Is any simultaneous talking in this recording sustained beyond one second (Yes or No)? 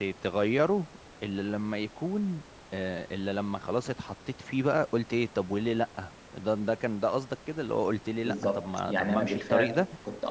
Yes